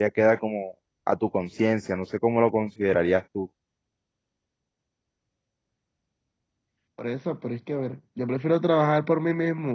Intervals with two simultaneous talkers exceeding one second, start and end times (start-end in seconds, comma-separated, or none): none